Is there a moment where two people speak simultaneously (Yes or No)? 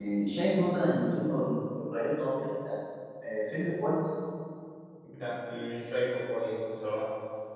No